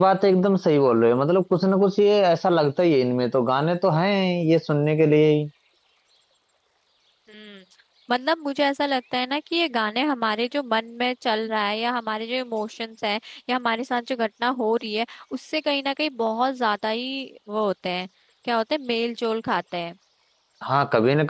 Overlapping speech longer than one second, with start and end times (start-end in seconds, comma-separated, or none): none